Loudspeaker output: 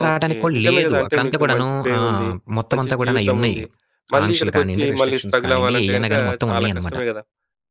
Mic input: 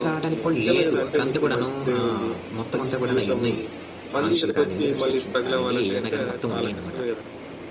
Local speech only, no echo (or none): none